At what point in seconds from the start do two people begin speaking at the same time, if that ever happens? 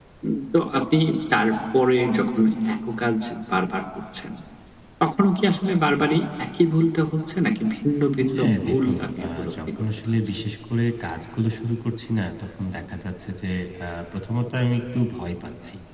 8.3 s

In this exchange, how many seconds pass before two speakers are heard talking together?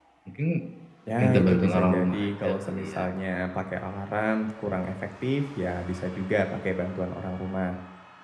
1.2 s

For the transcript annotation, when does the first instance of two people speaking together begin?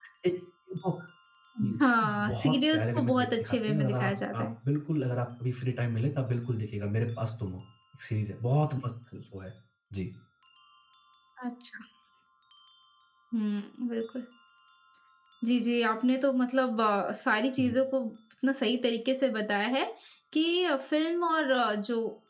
2.3 s

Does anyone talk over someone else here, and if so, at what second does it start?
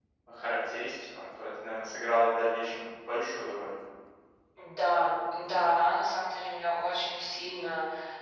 none

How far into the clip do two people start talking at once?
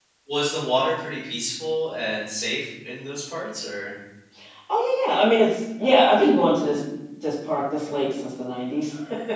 none

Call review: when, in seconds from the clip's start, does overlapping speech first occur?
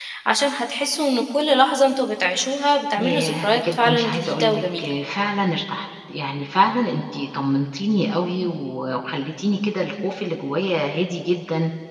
3.0 s

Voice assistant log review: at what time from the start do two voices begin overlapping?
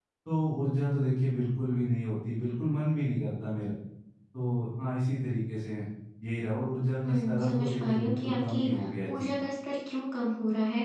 7.0 s

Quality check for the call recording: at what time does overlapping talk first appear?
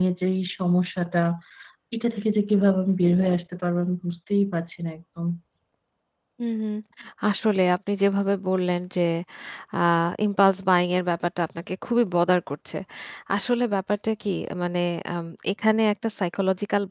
none

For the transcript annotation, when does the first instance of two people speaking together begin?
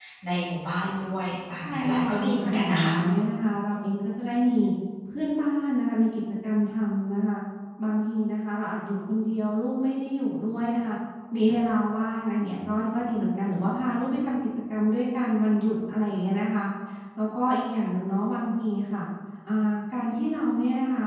1.6 s

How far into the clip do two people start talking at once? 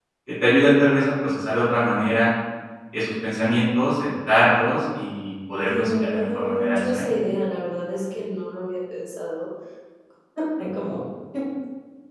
5.6 s

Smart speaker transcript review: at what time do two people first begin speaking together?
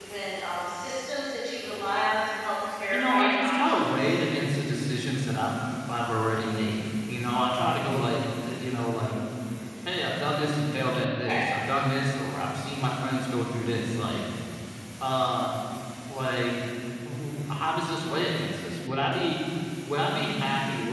2.9 s

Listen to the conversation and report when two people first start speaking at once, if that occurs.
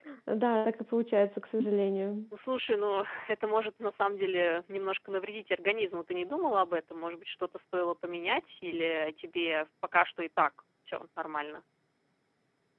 none

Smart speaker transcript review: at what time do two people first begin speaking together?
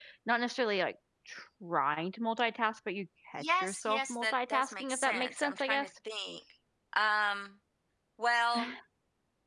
3.4 s

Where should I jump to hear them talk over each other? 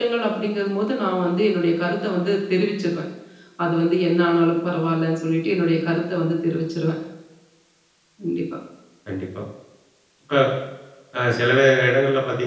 none

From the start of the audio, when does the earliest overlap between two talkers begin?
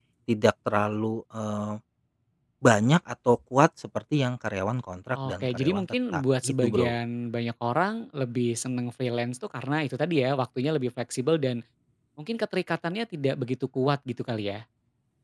5.2 s

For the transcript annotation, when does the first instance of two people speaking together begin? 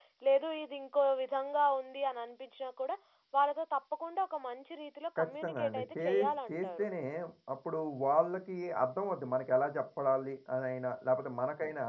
5.2 s

